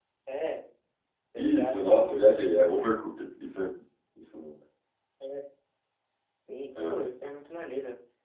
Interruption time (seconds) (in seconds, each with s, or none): 1.4 s